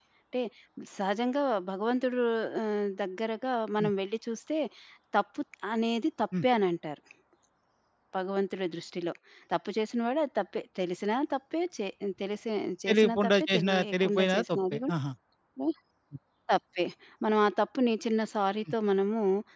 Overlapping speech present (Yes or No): Yes